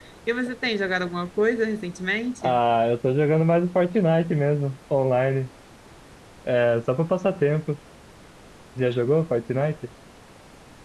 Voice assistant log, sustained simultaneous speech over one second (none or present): none